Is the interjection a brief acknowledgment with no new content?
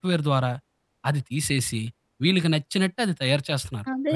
No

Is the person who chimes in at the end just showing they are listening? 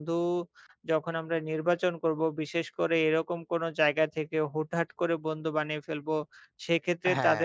Yes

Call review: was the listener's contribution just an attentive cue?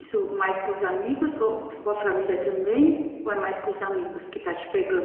No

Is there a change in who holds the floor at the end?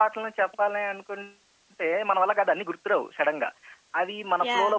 No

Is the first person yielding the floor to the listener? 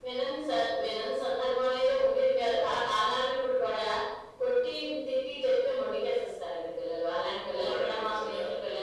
No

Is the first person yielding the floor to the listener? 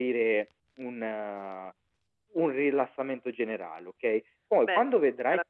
Yes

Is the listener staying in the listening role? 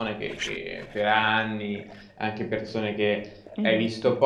Yes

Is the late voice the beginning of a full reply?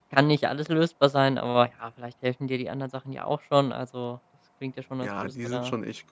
Yes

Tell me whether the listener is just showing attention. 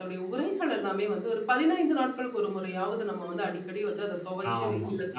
No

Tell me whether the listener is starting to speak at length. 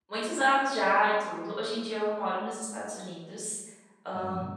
No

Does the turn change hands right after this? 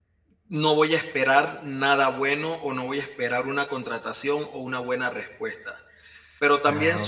No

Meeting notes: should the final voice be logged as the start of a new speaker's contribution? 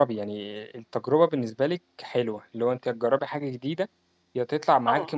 No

